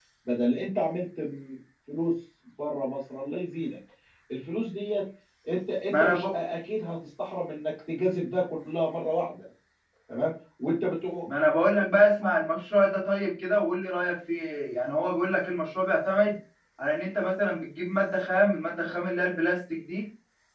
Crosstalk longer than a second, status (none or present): none